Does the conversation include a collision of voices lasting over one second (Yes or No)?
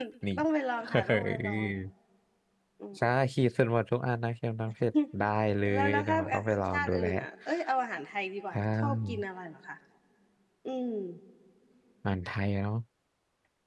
Yes